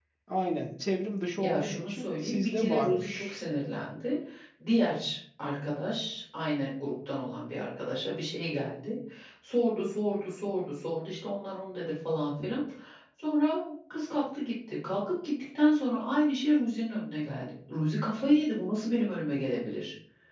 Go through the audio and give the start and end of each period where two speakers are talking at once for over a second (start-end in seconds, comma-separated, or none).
1.4-3.4